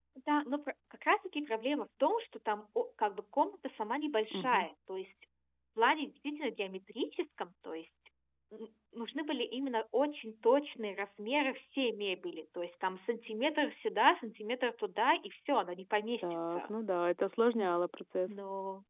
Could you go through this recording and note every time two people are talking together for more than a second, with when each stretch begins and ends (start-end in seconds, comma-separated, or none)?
none